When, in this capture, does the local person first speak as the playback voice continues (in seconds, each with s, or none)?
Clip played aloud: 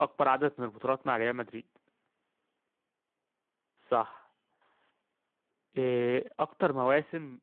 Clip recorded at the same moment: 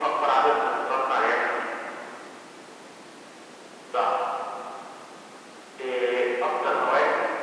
none